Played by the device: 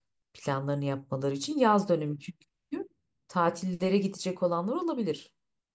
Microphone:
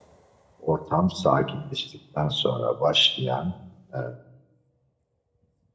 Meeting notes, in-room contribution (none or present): present